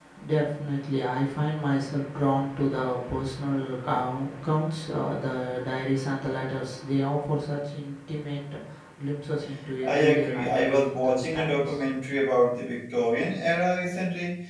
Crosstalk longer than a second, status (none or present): present